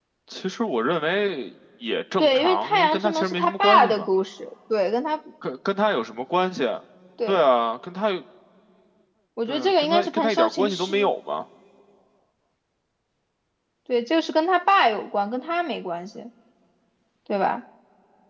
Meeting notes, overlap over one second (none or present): present